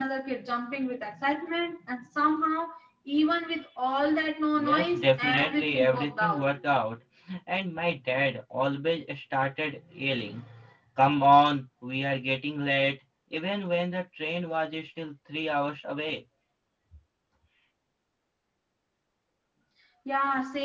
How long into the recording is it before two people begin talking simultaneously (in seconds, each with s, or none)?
4.5 s